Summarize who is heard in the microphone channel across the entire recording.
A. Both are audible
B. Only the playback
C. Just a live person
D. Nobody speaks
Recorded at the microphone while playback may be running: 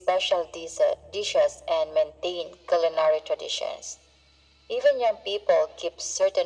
B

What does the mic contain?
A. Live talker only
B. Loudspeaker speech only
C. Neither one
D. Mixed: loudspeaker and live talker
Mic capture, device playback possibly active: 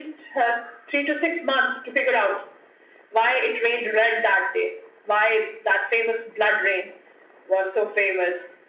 B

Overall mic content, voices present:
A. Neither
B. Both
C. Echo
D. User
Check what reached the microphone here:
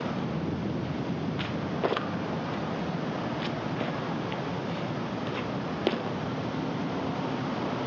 A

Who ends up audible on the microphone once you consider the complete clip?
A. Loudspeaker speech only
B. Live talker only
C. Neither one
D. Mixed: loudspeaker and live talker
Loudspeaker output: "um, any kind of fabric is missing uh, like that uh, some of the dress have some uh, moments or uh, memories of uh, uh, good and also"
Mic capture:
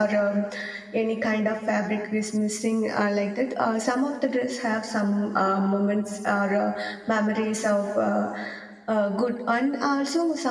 A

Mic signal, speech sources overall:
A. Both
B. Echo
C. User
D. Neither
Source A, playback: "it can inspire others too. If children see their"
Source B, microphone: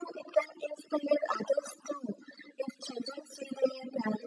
B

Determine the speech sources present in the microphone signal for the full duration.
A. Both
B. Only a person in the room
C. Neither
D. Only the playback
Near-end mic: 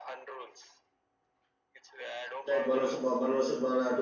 A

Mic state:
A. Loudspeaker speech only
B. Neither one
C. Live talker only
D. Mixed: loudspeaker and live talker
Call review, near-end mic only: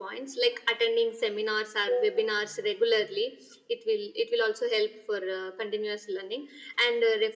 A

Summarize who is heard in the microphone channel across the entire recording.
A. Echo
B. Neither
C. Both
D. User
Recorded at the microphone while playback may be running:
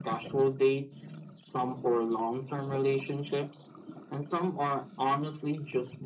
A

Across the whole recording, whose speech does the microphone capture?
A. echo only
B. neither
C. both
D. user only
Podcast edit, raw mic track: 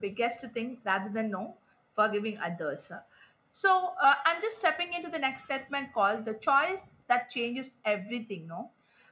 A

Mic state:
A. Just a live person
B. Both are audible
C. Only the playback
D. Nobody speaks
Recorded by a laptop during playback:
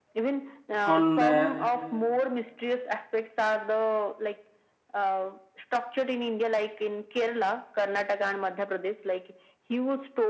B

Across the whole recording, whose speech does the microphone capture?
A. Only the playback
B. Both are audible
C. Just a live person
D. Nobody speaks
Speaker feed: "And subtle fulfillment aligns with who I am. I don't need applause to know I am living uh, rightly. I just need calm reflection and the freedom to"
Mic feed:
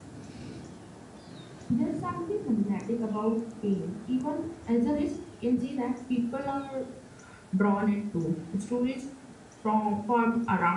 C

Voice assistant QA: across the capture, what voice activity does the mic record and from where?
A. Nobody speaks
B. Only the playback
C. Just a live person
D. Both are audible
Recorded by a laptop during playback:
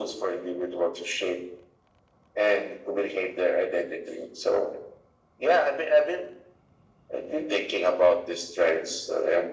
B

